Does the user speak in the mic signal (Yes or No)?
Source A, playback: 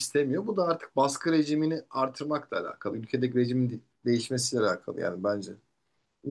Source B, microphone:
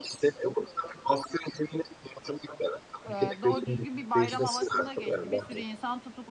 Yes